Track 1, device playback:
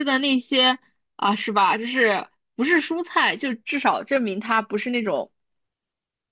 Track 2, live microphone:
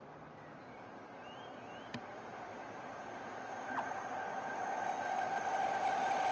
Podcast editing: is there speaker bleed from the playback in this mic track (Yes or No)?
No